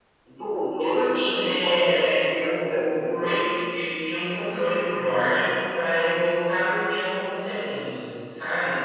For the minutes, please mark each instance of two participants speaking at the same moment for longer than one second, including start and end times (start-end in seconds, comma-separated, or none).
0.8-3.5